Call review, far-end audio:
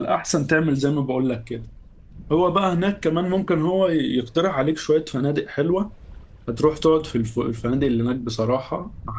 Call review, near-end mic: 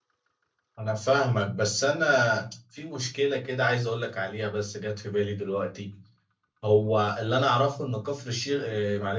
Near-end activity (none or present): present